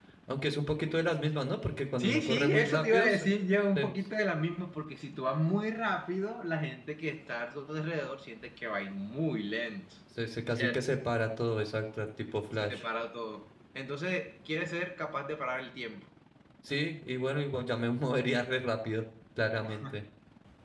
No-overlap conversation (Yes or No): No